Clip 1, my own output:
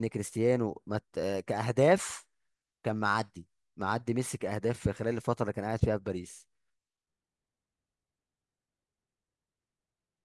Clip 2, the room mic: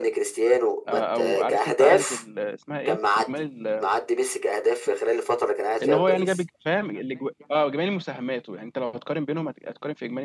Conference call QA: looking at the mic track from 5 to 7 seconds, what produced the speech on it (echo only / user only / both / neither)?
both